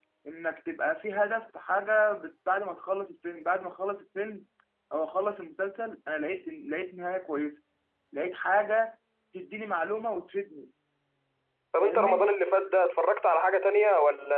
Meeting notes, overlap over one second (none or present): none